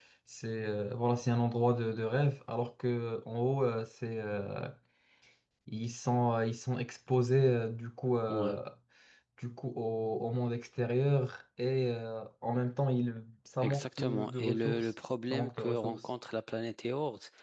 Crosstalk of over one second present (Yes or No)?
Yes